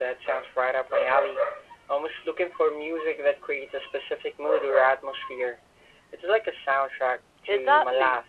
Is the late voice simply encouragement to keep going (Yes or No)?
No